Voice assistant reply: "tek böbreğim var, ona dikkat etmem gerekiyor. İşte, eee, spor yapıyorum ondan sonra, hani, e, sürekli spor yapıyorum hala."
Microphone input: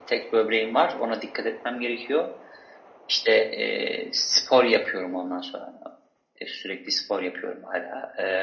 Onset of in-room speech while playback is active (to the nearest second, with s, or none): none